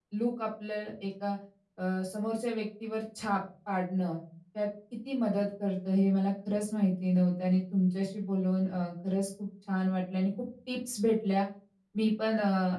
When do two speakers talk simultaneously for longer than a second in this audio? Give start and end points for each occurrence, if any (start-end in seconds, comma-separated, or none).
none